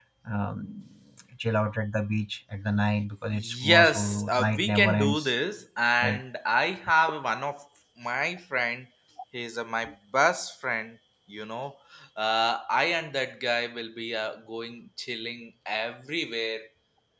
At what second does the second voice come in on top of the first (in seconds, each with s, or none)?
3.3 s